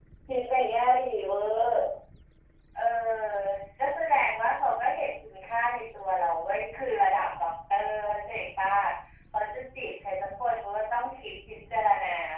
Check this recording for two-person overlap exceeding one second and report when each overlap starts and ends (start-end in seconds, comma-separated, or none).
none